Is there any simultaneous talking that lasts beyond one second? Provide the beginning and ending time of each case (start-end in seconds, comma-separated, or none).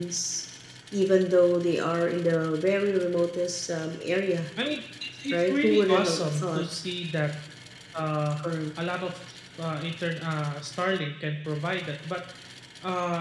5.3-6.6